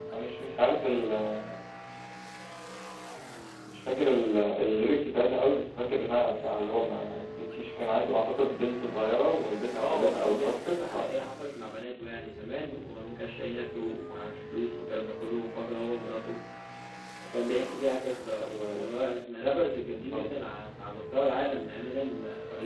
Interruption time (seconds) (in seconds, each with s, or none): 9.8 s